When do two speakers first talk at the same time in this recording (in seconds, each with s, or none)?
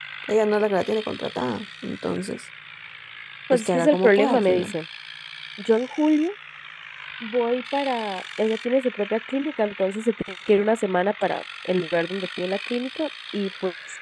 3.5 s